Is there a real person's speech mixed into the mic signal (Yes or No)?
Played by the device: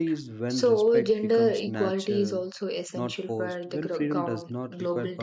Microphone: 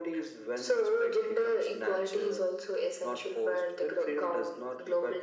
No